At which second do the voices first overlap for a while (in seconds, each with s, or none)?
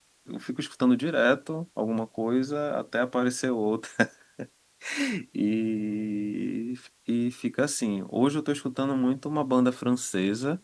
none